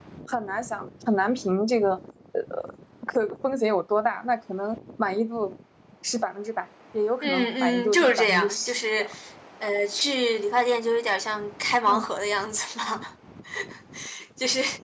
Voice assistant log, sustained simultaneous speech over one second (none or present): present